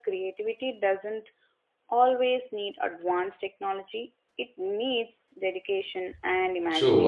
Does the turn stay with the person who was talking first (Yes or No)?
No